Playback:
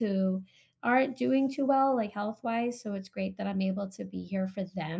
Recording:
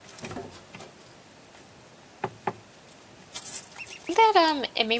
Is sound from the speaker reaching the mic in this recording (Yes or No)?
No